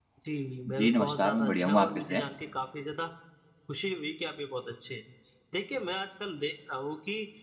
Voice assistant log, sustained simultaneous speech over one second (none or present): present